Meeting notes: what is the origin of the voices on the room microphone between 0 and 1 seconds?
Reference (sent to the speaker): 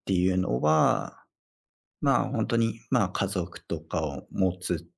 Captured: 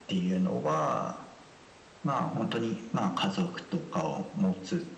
echo only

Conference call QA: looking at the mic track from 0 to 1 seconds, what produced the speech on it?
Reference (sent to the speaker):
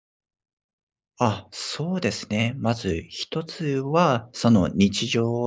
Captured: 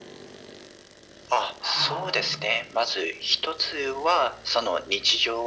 neither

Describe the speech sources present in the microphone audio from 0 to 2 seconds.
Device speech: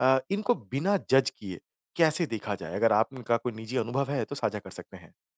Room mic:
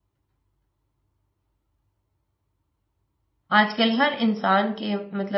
neither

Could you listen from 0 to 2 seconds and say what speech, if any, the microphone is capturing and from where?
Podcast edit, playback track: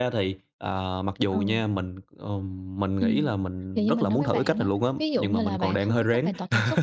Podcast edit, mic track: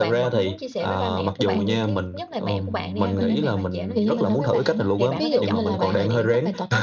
both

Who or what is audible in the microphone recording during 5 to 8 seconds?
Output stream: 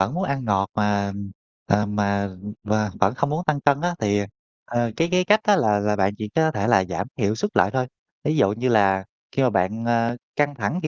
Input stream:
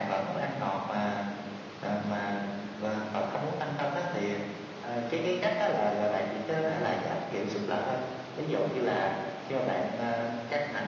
echo only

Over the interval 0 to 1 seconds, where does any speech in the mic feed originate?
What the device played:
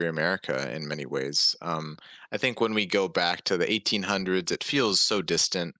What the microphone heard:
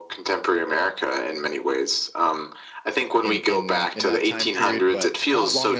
echo only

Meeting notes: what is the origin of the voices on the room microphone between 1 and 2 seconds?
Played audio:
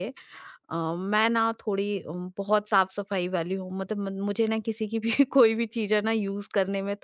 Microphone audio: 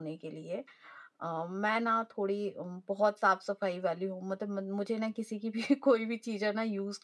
echo only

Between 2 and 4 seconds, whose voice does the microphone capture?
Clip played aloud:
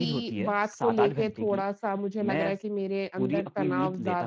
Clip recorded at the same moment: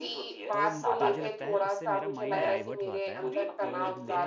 both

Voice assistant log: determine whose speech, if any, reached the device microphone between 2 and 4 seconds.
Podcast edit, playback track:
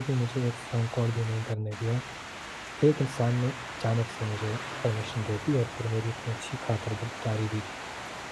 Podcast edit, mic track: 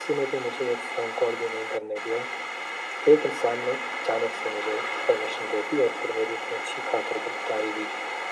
echo only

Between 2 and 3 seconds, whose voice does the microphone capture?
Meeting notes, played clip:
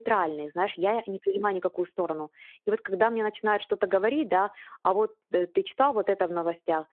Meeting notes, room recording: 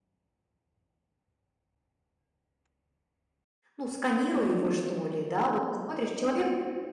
neither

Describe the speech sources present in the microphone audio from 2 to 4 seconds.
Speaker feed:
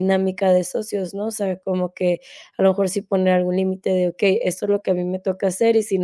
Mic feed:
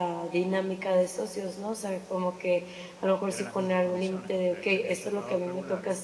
both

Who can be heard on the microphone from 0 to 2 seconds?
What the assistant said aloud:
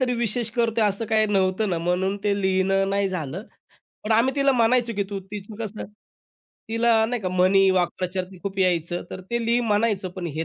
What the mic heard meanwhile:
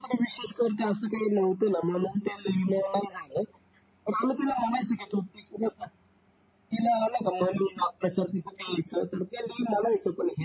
echo only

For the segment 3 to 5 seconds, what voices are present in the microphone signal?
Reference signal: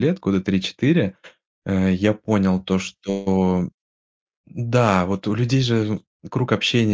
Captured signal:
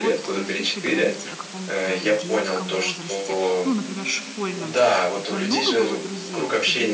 both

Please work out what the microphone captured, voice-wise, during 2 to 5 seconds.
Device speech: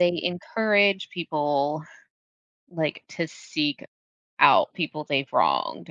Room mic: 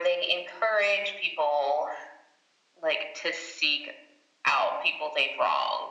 echo only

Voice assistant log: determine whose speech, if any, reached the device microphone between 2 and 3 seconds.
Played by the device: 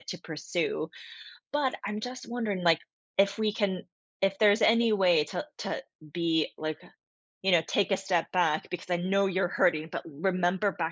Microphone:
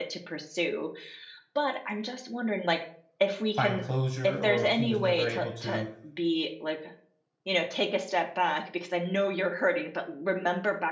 echo only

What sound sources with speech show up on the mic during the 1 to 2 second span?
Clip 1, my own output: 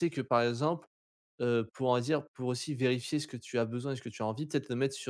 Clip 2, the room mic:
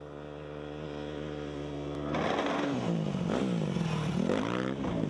neither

